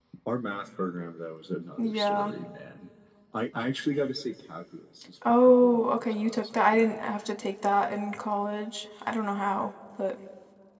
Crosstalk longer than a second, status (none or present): present